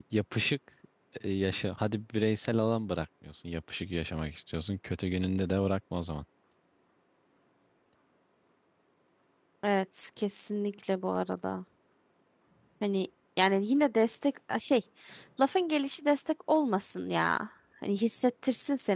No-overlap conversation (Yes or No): Yes